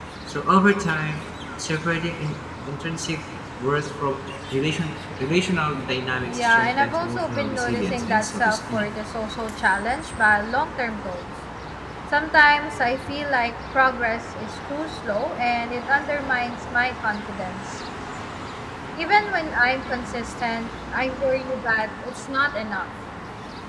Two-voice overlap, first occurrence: 6 s

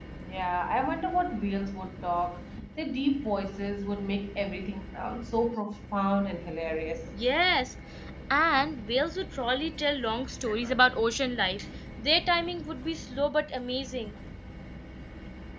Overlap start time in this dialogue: none

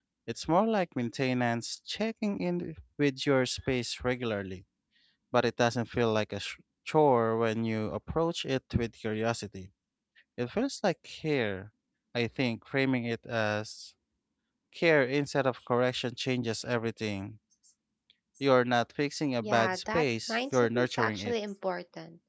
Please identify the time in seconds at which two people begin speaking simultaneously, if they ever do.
19 s

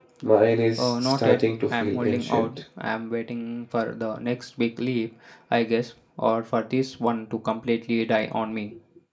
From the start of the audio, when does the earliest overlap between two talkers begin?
1 s

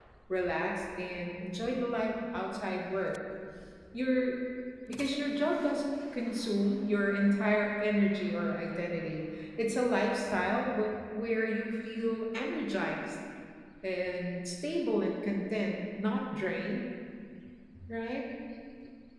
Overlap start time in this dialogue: none

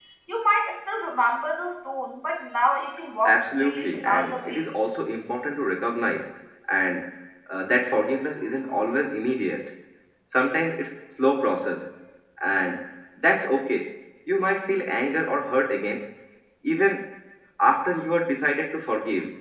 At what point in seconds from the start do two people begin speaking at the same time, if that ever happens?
3 s

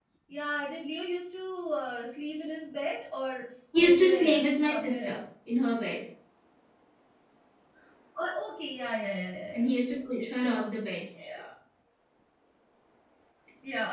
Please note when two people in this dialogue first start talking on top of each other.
4 s

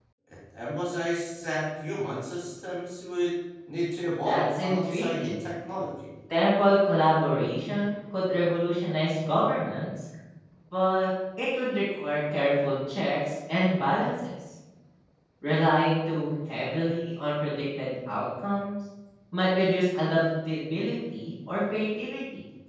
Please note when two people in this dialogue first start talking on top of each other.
4 s

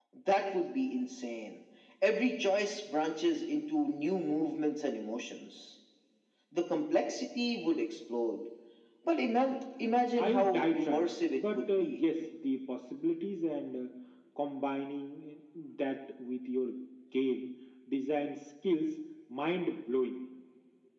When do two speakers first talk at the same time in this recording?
10 s

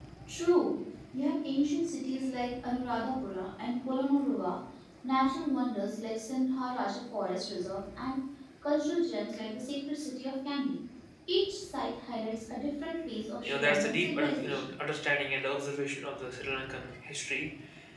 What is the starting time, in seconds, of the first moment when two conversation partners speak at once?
13 s

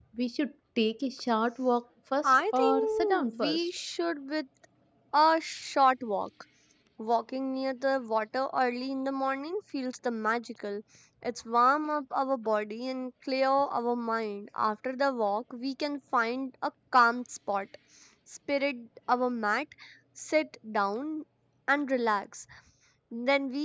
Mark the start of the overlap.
2 s

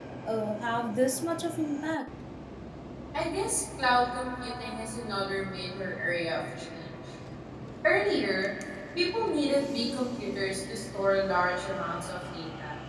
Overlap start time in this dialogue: none

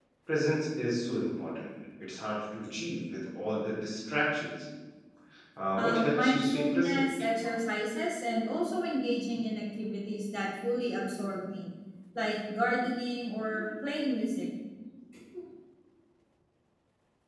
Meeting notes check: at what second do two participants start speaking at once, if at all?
6 s

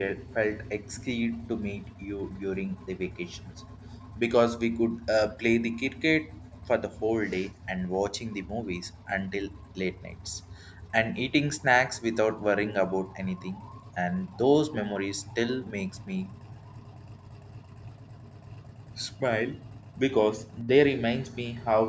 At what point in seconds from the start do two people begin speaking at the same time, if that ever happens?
none

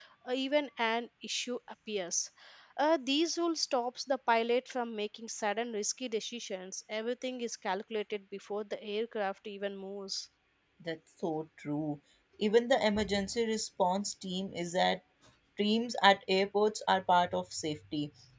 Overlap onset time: none

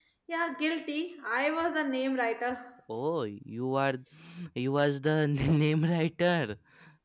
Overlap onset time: none

